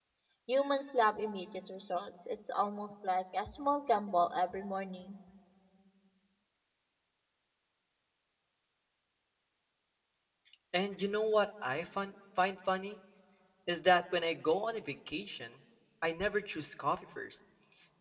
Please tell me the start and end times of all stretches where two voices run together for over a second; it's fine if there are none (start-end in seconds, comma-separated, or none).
none